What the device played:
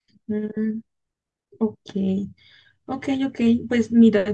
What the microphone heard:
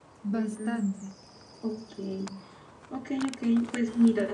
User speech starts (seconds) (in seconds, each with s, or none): 0.3 s